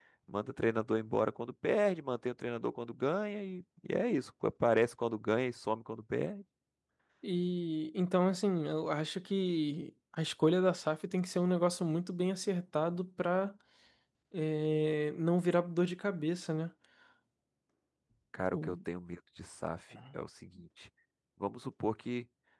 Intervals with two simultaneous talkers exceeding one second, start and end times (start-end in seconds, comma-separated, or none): none